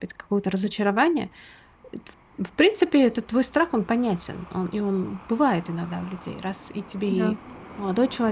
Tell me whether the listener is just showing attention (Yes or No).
Yes